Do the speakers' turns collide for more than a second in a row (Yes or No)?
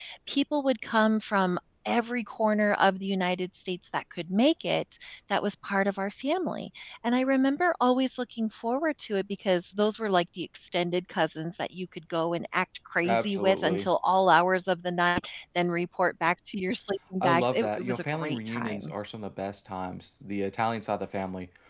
Yes